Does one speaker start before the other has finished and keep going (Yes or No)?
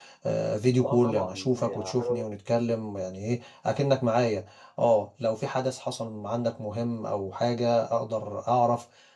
Yes